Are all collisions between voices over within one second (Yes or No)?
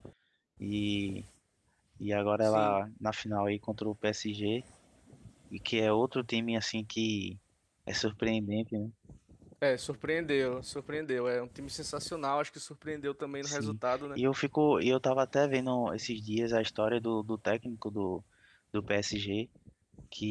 Yes